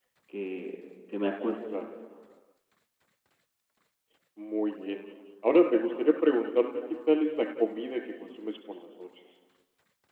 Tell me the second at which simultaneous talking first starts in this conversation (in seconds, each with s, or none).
none